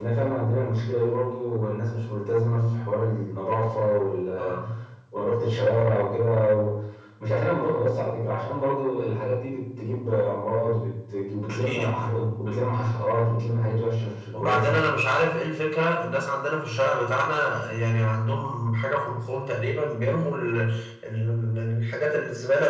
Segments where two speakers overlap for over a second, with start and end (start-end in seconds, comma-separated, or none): none